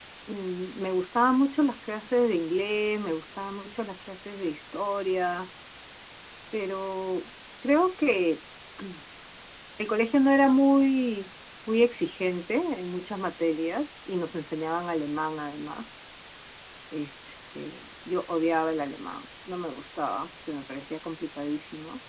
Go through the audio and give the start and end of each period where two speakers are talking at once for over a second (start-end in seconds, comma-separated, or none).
none